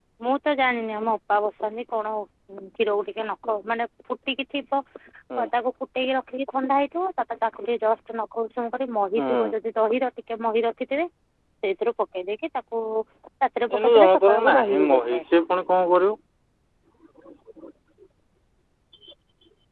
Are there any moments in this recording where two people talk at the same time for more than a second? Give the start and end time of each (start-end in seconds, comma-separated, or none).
13.8-15.2